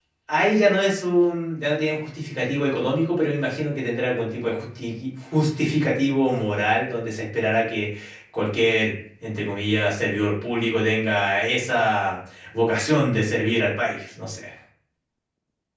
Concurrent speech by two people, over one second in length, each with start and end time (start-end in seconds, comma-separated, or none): none